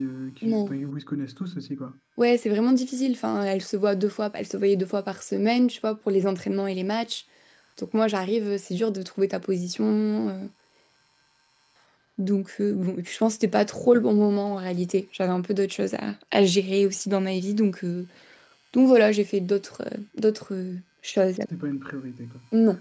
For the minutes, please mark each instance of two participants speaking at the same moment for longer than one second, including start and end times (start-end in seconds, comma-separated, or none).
none